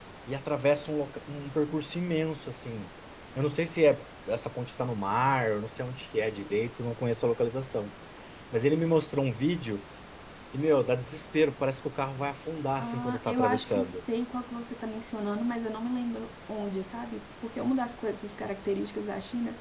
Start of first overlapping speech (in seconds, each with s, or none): 12.8 s